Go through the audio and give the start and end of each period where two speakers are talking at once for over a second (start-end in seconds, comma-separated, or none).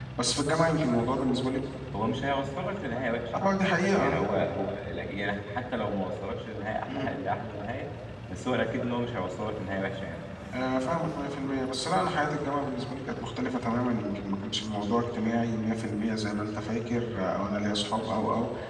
none